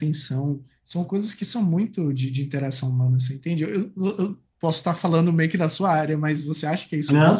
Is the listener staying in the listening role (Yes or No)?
No